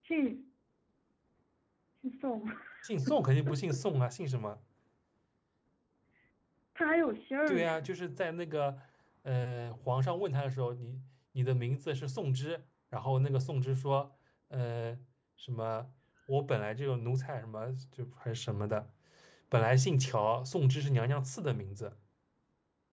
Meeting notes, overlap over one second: none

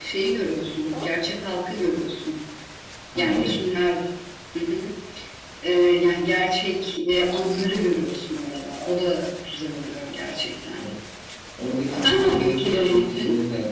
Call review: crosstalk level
present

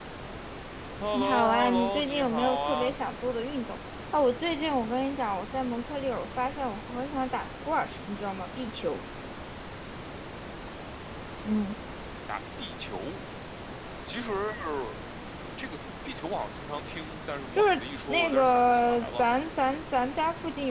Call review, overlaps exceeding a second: present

